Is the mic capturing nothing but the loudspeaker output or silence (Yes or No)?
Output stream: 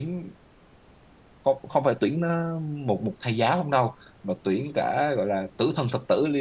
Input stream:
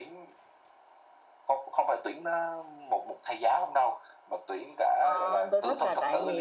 No